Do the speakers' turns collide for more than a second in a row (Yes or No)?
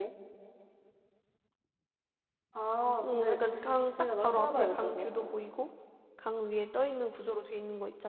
Yes